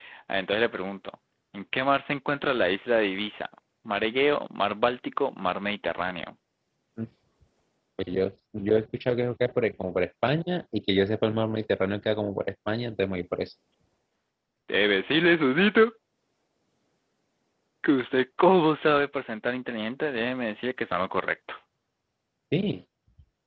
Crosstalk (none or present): none